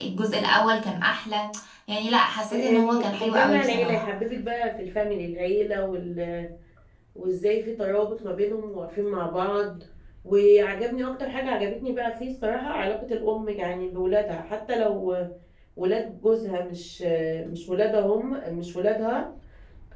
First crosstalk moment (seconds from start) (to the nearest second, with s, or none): 3 s